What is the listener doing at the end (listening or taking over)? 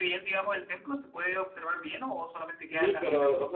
taking over